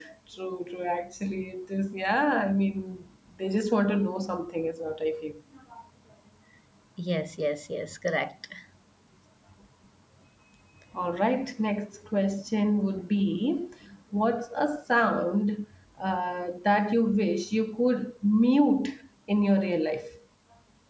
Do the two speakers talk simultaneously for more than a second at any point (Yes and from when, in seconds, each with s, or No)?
No